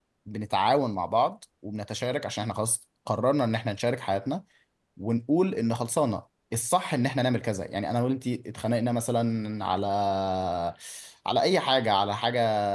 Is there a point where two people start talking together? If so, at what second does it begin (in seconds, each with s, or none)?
none